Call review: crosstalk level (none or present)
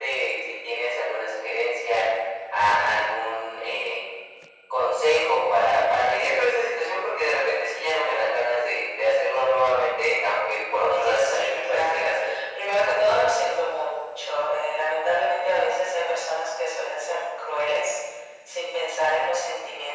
present